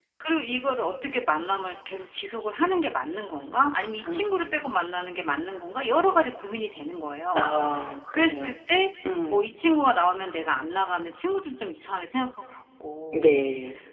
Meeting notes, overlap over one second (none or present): none